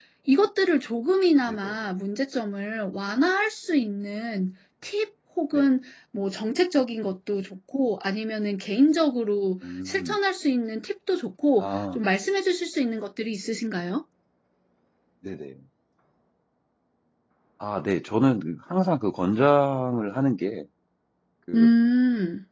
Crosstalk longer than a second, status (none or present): none